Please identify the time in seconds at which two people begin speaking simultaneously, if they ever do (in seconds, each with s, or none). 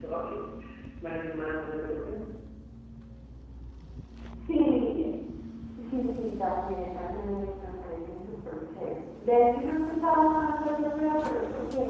none